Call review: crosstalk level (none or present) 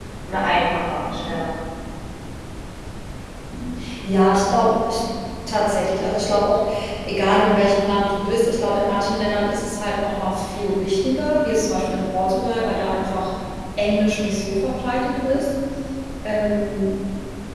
none